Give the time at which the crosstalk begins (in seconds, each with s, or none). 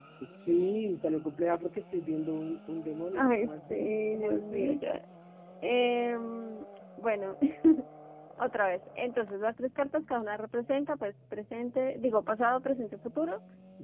3.1 s